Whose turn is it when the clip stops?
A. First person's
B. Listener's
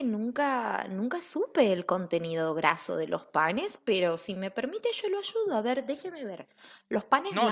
B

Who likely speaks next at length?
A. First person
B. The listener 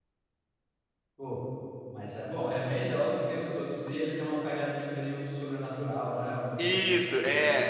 B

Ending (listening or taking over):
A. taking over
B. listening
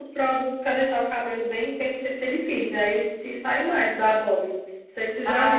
B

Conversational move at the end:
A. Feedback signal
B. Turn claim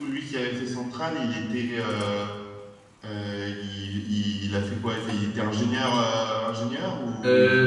B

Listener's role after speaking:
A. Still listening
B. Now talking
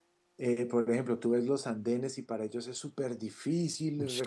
A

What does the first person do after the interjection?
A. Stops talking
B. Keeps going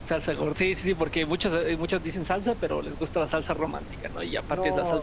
A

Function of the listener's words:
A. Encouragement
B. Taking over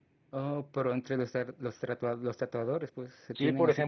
B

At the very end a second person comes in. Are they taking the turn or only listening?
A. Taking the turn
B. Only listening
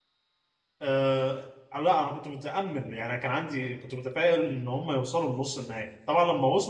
B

